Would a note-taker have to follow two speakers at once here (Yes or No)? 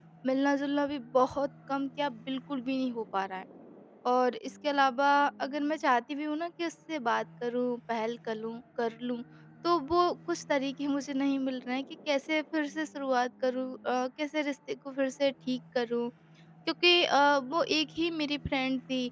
No